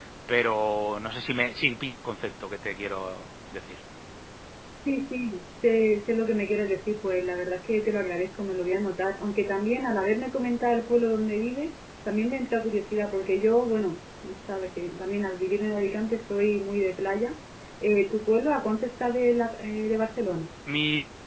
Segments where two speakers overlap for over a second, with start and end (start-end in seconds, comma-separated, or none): none